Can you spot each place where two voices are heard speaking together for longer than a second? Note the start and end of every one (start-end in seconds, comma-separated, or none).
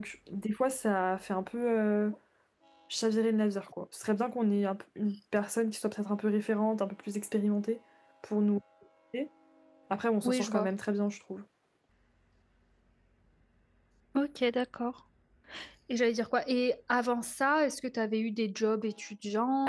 none